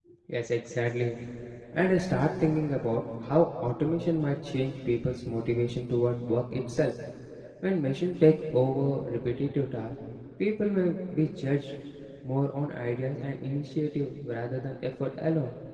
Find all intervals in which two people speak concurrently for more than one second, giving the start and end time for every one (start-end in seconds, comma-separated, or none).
none